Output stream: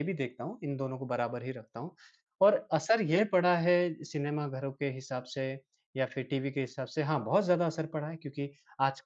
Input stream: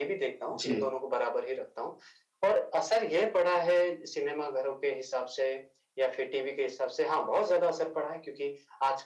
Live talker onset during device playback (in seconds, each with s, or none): 0.5 s